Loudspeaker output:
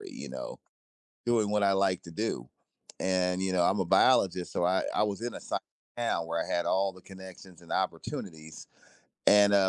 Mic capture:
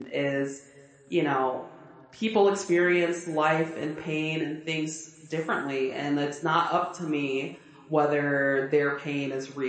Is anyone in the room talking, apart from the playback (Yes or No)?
Yes